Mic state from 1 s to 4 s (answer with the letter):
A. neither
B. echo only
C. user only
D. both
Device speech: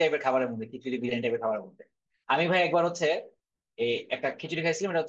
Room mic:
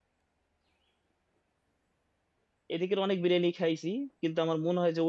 C